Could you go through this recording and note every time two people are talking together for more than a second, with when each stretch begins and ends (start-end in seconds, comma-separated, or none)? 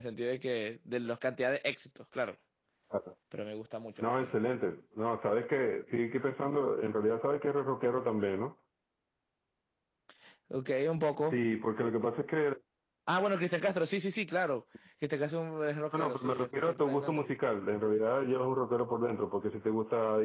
15.9-17.4